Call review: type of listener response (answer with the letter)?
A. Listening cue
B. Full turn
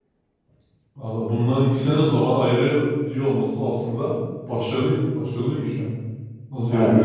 B